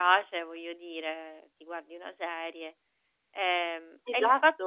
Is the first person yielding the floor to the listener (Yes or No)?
No